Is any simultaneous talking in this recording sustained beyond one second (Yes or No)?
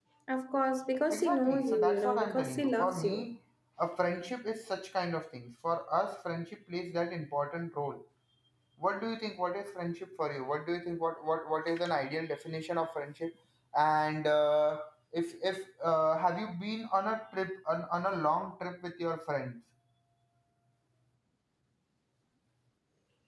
Yes